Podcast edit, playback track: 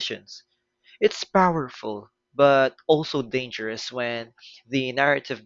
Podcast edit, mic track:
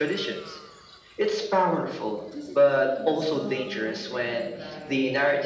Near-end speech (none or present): present